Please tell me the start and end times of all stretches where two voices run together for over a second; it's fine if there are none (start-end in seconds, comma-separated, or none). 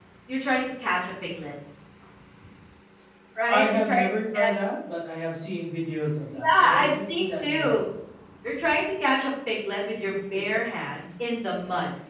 6.3-7.8